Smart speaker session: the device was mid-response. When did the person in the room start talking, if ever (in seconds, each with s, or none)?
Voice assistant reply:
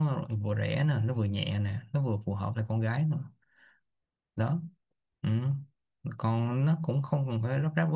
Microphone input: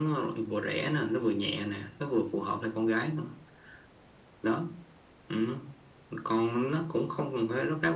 none